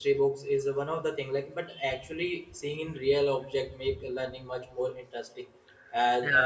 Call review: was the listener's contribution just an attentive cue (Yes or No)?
Yes